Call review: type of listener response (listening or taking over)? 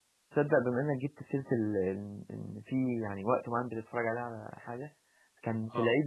listening